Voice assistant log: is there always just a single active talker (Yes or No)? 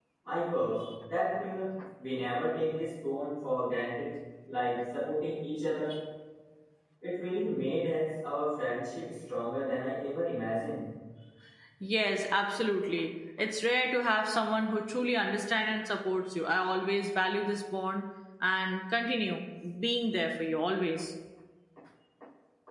Yes